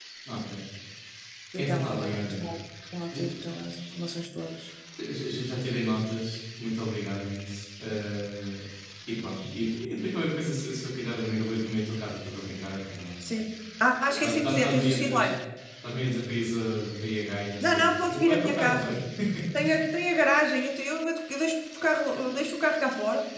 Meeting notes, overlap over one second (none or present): present